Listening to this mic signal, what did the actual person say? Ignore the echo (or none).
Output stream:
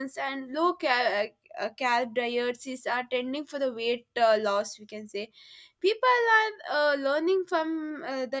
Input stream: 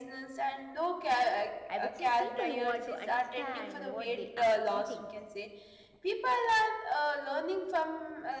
I would say people want to understand what they are eating.